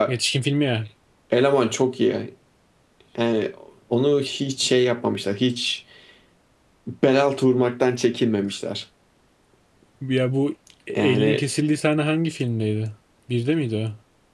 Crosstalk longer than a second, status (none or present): none